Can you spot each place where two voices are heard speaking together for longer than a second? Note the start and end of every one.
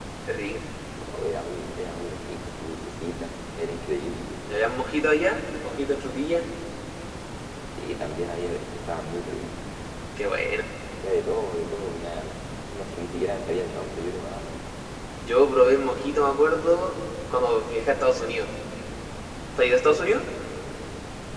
none

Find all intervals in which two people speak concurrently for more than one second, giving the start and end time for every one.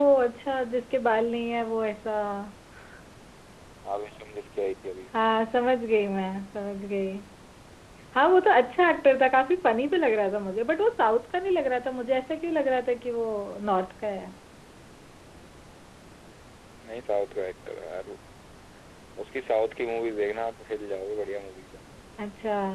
none

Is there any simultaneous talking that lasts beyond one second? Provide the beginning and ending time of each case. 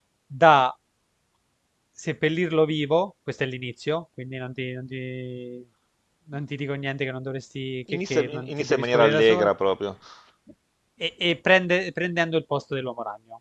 7.9-9.5

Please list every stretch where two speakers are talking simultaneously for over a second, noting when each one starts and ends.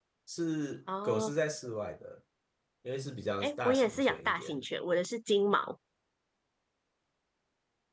3.4-4.7

